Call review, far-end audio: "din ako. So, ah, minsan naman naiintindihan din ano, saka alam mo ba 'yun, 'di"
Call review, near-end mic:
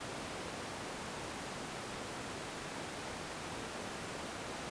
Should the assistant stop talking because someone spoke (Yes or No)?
No